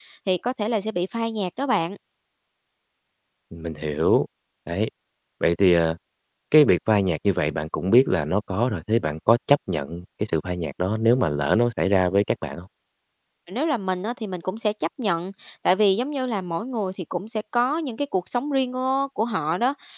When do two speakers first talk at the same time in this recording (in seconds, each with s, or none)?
none